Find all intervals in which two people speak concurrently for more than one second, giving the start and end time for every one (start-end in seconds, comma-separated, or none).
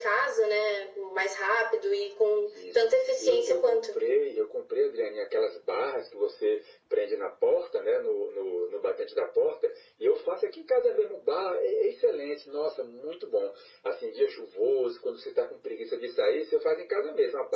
2.5-4.0